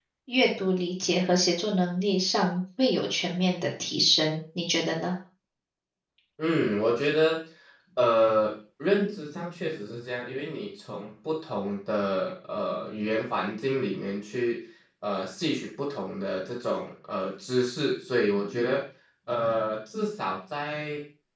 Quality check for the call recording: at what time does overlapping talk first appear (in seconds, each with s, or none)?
none